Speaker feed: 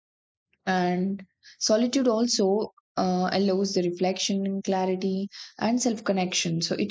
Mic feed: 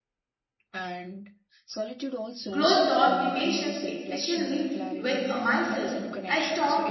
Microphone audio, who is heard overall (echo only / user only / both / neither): both